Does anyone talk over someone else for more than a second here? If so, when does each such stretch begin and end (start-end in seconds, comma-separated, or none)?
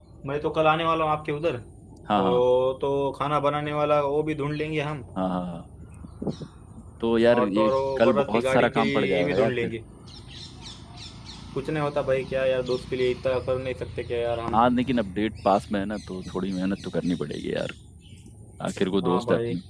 7.3-9.7